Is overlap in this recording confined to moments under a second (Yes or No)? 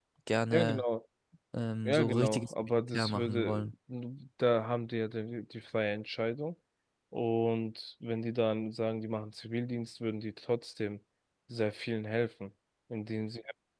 No